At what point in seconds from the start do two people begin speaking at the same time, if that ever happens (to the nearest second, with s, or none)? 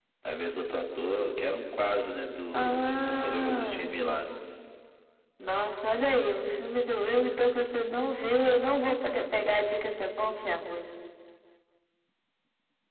3 s